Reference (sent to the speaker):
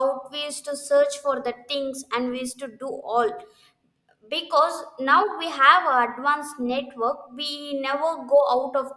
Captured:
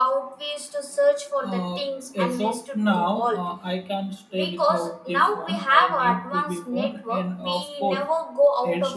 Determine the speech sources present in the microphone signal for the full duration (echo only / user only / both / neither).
both